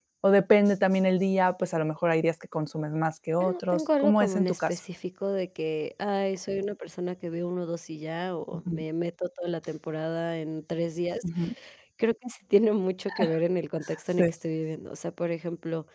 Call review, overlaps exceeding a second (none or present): present